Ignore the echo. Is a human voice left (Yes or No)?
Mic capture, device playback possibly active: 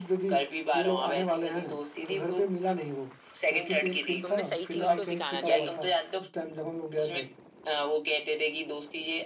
Yes